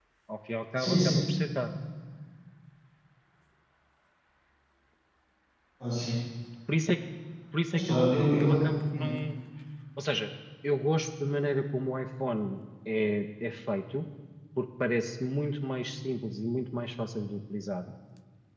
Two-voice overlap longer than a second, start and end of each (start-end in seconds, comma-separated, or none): 7.7-9.1